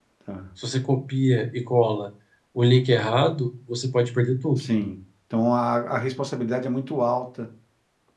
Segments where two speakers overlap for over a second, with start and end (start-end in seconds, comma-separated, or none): none